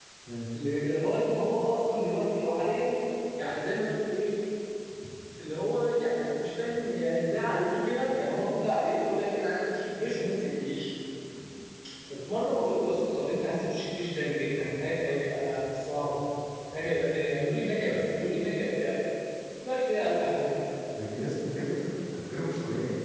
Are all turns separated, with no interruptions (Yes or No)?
Yes